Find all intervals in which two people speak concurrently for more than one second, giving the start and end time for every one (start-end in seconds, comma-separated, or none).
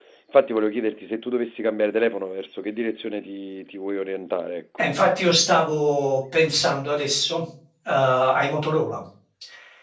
none